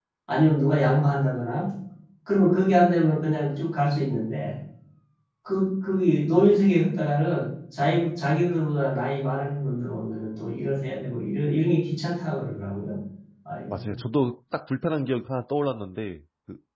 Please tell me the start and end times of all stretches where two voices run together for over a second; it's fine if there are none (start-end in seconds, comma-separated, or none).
none